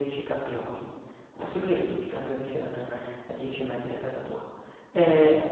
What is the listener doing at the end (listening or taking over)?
listening